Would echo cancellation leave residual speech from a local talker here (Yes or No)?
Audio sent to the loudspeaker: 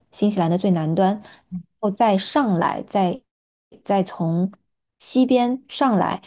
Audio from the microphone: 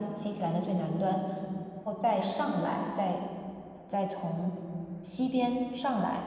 No